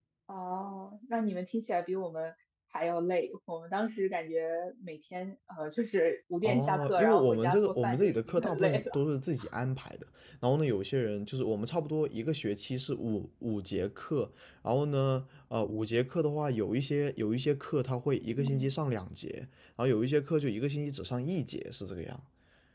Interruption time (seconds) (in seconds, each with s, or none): 6.4 s